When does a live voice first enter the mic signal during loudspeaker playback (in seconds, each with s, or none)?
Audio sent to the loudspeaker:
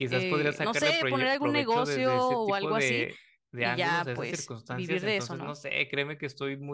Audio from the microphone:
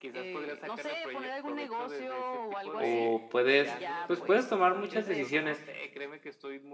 2.7 s